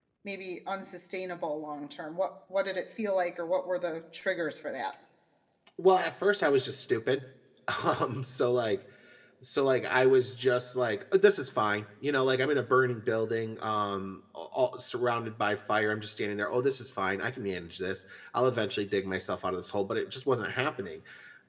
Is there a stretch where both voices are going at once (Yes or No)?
No